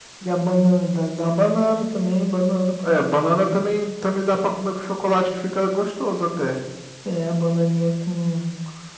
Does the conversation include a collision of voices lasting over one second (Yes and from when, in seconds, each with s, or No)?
No